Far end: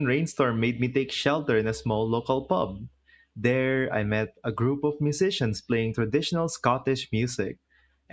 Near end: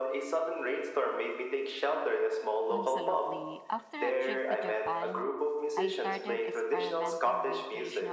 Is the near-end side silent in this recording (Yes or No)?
No